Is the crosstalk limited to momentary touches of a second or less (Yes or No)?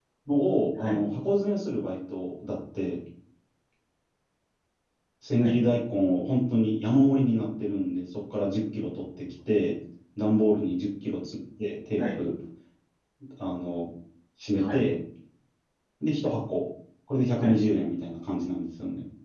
Yes